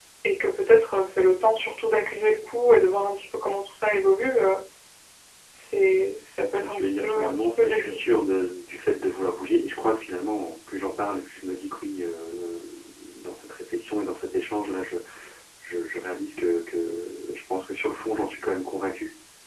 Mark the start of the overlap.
6.6 s

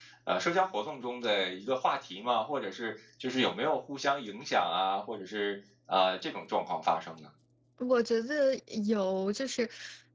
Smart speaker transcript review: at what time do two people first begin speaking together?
none

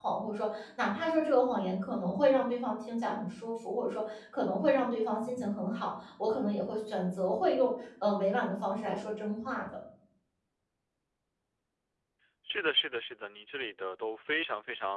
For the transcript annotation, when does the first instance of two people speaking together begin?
none

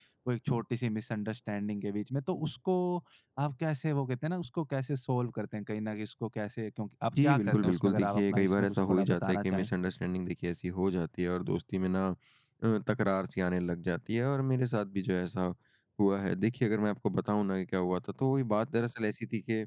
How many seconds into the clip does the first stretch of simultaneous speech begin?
7.1 s

